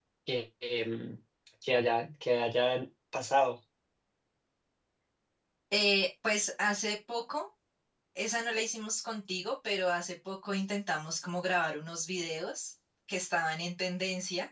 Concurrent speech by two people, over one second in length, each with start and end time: none

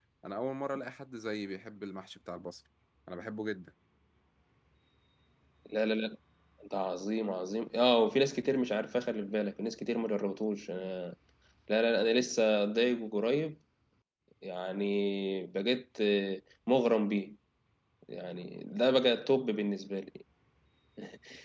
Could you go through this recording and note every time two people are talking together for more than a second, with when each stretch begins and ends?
none

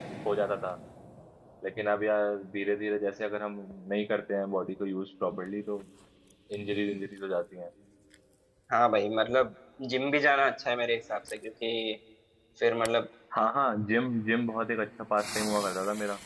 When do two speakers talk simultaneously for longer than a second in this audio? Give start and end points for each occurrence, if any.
none

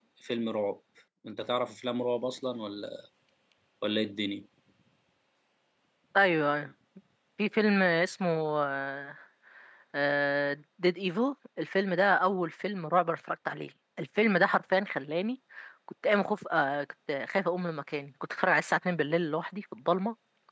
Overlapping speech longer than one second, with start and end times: none

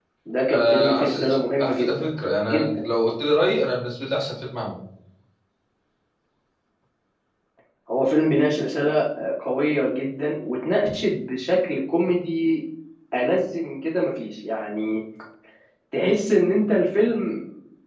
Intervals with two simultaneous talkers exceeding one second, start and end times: 0.5-2.0

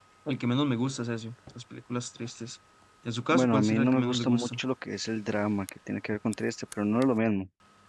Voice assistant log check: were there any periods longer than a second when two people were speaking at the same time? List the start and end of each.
3.3-4.6

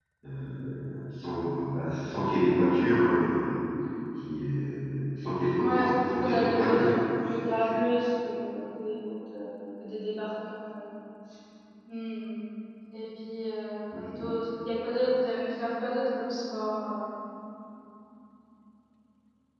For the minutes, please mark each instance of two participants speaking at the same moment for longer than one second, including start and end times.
5.6-7.0

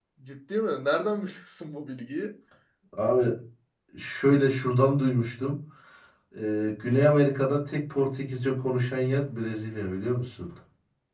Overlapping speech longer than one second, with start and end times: none

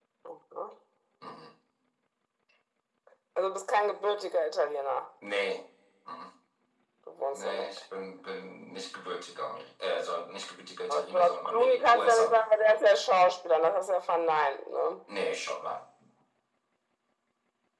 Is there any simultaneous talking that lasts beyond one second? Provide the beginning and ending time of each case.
10.9-12.5

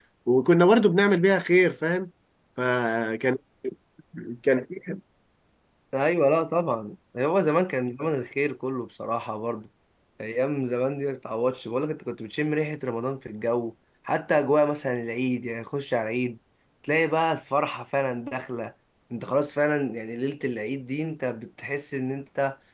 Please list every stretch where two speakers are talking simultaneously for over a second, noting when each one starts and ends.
none

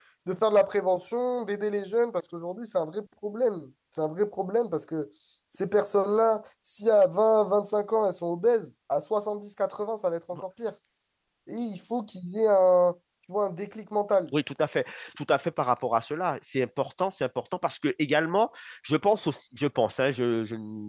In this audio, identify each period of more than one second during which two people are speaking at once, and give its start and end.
none

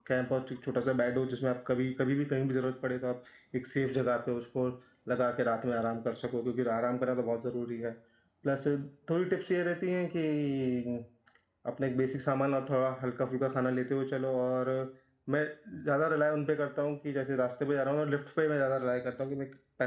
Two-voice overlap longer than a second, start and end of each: none

